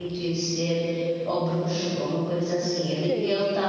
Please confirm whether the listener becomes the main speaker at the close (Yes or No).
No